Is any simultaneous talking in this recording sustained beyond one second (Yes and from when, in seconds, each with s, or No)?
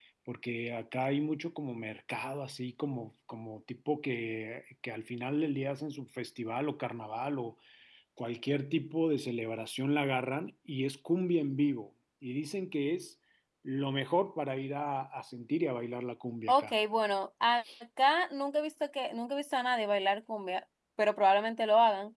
No